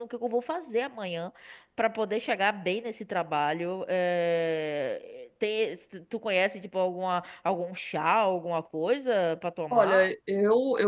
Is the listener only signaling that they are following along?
No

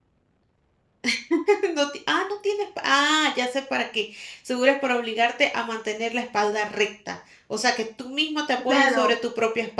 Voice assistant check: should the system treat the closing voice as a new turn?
Yes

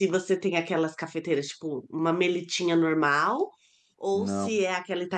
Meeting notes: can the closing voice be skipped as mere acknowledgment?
Yes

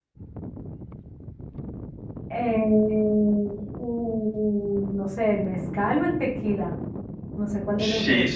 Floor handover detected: Yes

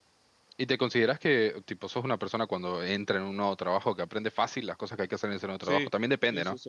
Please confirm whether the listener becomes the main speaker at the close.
Yes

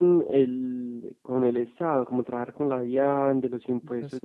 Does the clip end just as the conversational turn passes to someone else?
No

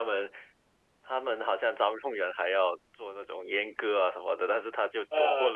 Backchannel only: Yes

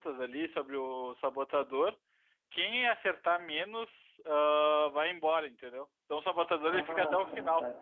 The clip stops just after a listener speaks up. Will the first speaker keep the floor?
No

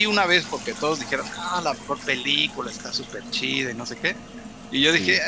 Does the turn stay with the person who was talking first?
Yes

